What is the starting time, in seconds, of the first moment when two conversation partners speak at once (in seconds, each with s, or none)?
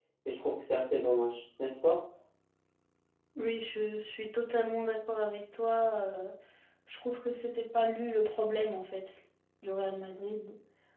none